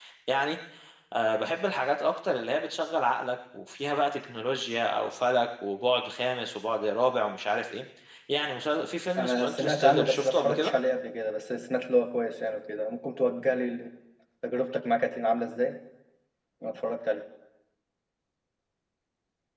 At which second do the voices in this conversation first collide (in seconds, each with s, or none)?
9.2 s